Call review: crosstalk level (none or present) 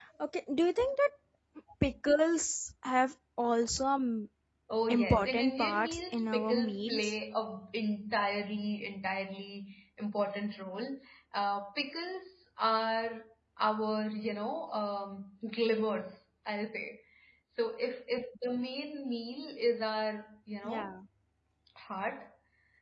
present